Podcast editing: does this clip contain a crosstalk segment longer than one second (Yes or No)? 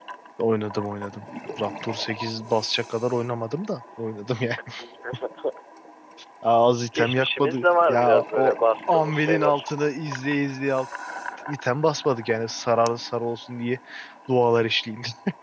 Yes